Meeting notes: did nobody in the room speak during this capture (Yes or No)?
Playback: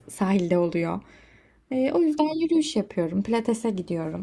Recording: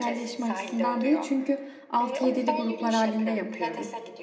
No